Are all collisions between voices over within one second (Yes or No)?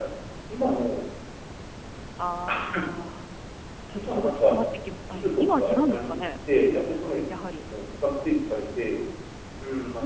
No